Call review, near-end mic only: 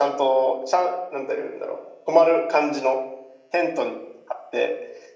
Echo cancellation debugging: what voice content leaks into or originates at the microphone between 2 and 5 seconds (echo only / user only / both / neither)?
echo only